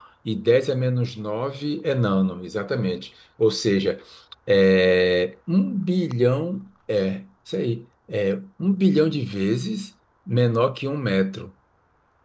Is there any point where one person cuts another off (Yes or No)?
No